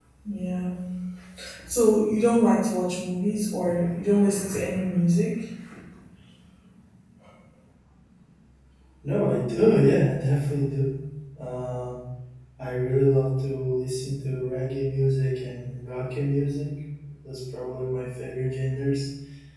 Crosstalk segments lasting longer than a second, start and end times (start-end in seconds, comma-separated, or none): none